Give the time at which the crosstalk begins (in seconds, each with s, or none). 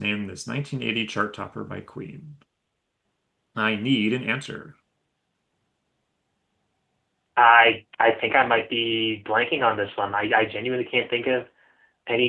none